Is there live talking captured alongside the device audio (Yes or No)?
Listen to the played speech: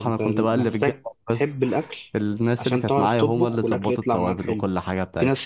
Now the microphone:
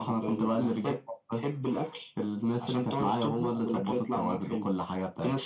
No